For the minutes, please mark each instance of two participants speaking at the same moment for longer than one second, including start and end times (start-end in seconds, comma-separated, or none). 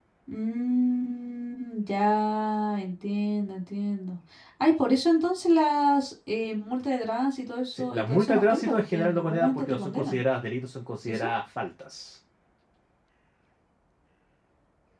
7.7-10.2